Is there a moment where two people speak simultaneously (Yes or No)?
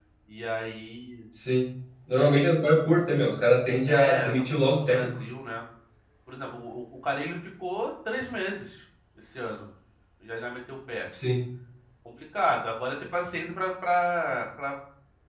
Yes